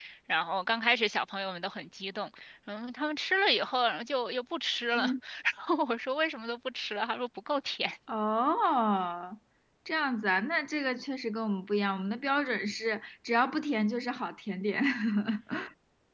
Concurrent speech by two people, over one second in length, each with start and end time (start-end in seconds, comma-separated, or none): none